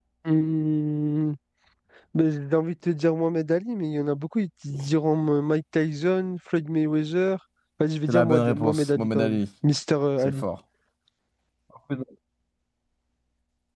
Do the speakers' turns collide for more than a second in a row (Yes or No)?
Yes